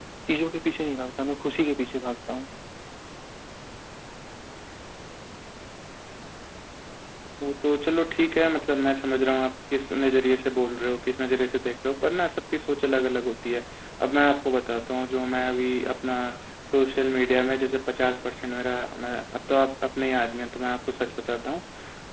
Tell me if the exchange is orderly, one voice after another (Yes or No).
Yes